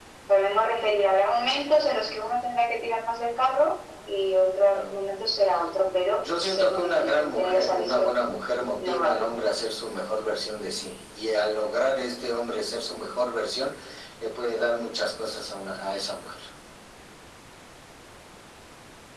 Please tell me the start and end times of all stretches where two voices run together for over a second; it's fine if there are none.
6.2-8.1

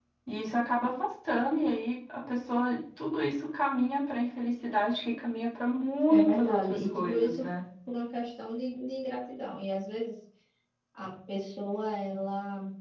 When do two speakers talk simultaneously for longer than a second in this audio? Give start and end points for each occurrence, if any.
6.1-7.4

